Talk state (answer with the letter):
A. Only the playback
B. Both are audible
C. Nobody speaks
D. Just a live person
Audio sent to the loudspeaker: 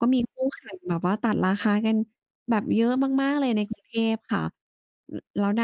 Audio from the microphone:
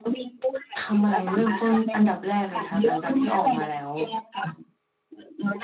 B